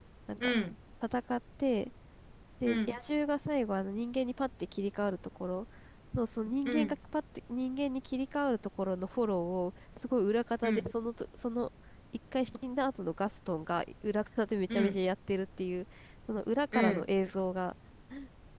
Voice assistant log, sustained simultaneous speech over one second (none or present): none